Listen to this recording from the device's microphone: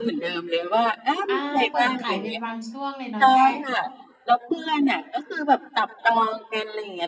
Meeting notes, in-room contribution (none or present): present